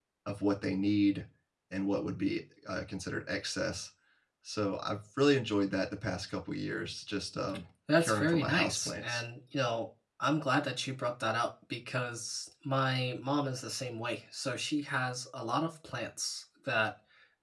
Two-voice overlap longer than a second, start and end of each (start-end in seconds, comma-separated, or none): 8.0-9.2